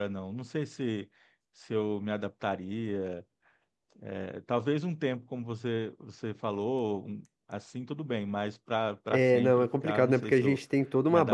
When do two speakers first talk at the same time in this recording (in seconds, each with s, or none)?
9.1 s